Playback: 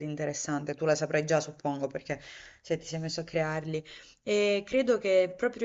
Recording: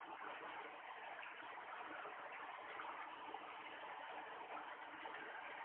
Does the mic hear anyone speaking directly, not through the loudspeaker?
No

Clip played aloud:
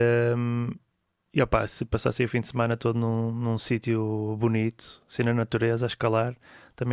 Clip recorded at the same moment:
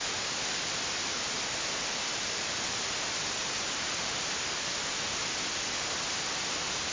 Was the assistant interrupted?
No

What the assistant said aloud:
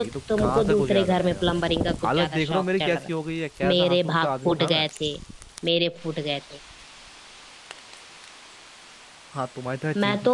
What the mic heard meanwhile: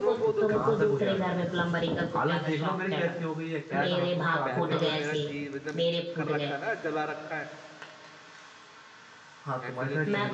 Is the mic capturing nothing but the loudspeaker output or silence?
No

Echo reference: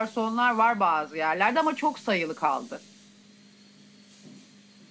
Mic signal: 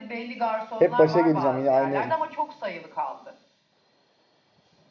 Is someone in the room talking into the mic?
Yes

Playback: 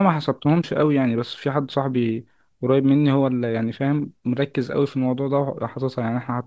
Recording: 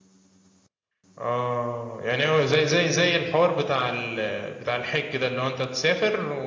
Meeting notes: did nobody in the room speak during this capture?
No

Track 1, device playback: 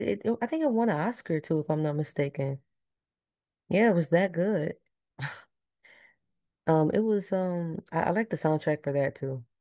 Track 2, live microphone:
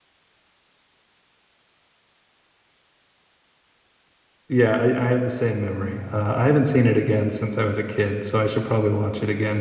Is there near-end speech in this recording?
Yes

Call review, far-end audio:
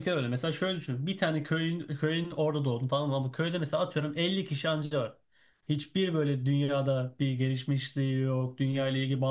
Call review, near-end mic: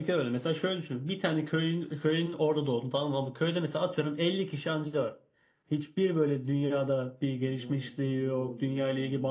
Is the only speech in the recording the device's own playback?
No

